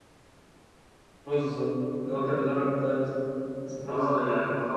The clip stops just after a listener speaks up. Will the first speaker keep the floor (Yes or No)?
No